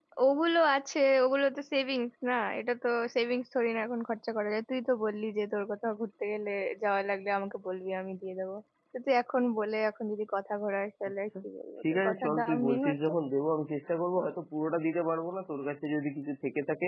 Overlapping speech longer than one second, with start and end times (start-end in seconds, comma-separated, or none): 11.8-13.1